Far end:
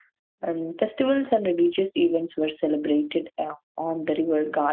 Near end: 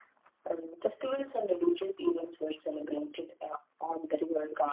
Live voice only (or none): none